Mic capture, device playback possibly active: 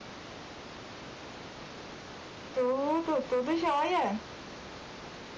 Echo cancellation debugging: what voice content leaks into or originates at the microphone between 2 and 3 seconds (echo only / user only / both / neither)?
user only